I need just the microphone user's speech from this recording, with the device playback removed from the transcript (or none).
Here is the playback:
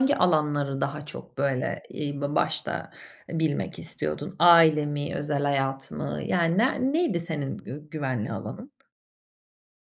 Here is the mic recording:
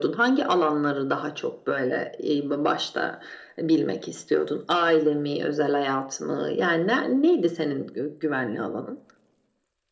none